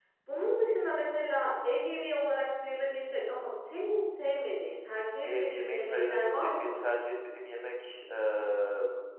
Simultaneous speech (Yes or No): Yes